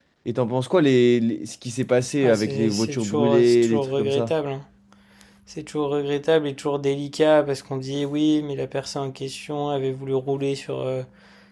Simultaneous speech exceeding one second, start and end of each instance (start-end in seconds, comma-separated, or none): 2.2-4.3